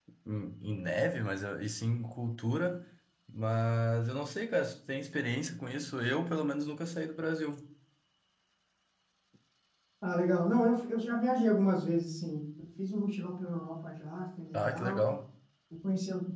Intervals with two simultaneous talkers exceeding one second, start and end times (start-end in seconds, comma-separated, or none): none